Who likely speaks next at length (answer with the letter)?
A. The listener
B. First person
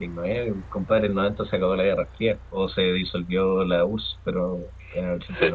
A